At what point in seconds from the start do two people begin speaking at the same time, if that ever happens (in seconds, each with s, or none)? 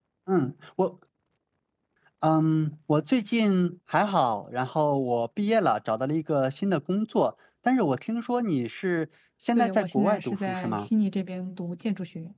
9.6 s